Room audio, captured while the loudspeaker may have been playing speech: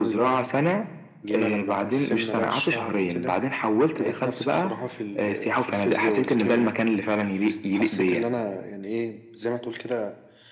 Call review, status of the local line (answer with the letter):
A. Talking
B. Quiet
B